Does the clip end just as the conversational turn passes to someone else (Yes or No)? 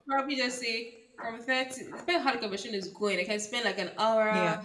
No